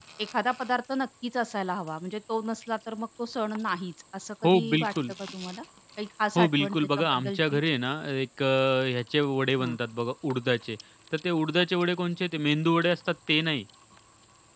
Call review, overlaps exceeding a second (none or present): present